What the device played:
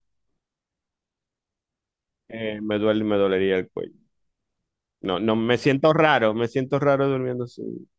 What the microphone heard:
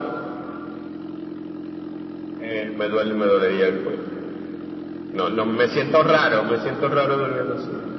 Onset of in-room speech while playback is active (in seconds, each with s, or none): none